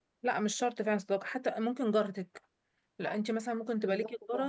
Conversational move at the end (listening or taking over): listening